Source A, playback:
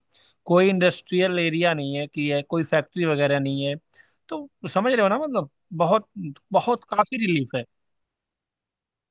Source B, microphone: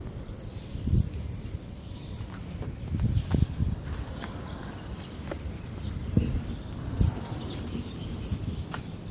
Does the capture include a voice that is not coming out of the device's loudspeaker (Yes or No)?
No